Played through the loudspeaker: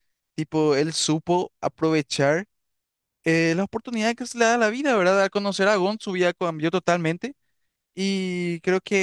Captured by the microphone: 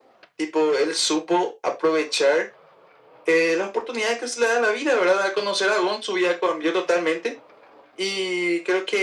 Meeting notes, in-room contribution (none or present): none